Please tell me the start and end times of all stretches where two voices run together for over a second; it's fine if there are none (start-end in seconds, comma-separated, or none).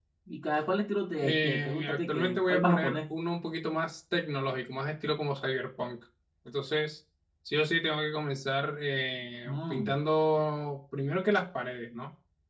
1.2-3.0